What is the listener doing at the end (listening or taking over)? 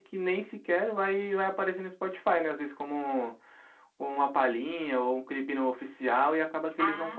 listening